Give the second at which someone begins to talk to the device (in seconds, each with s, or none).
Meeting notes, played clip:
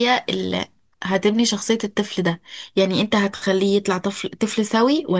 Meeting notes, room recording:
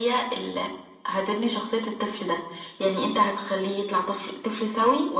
none